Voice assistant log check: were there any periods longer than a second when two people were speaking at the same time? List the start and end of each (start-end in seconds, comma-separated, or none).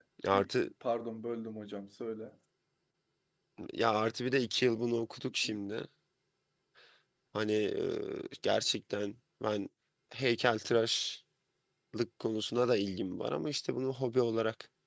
none